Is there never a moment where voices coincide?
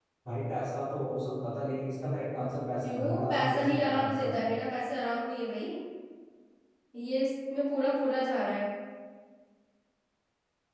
No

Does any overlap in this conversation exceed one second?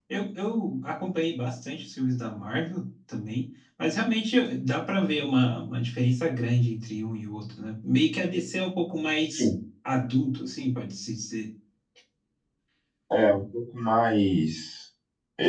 No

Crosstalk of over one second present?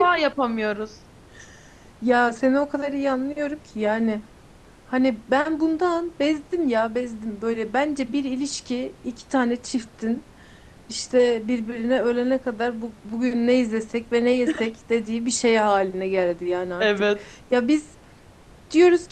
No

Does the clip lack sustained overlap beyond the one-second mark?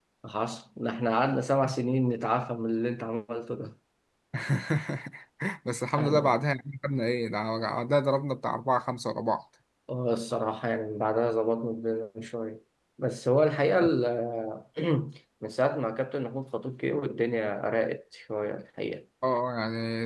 Yes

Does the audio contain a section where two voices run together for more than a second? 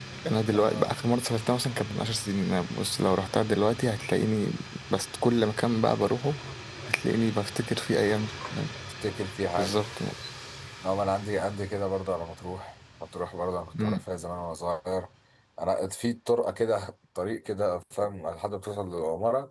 No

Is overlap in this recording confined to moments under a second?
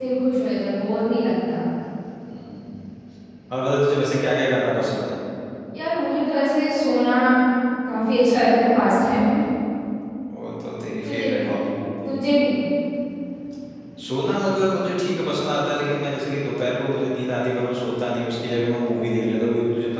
Yes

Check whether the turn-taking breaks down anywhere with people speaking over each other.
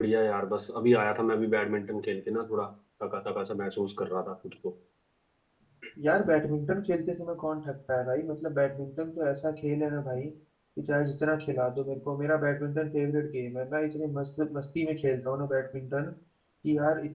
No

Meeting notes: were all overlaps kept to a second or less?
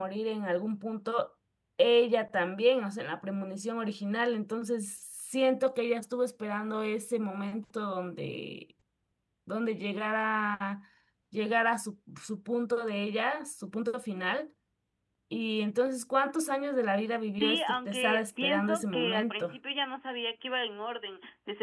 No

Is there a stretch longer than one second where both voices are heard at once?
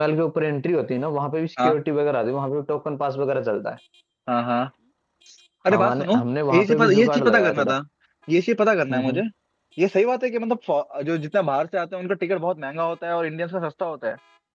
Yes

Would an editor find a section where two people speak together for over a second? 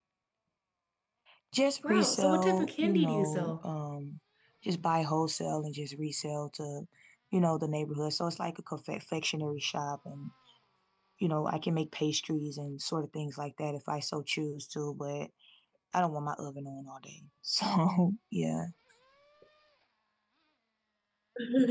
Yes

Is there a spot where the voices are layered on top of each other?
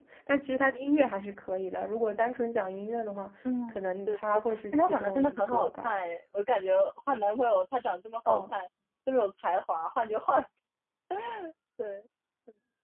Yes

